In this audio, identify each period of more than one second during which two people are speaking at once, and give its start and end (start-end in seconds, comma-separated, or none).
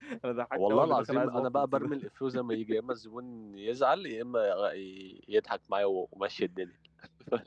0.6-1.9